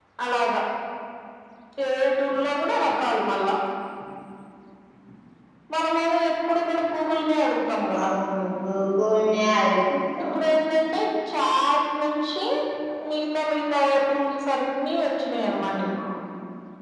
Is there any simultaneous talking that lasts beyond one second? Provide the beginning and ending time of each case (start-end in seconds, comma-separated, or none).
none